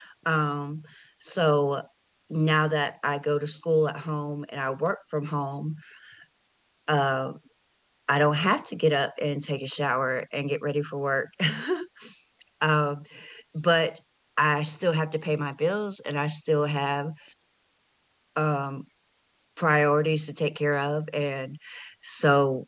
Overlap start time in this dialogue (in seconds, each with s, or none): none